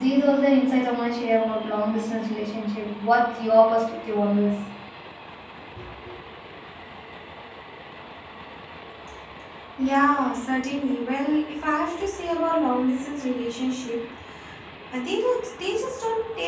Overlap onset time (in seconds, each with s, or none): none